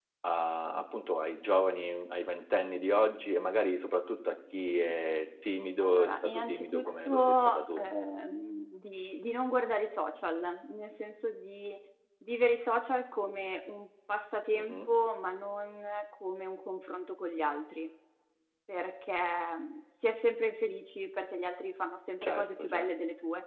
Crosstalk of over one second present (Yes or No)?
Yes